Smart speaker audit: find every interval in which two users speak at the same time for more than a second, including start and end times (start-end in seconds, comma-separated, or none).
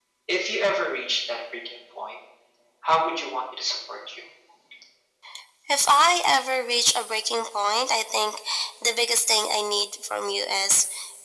none